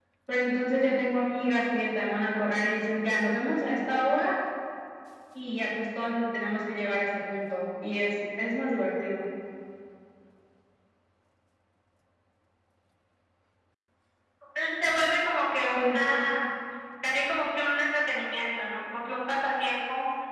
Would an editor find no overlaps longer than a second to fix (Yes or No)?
Yes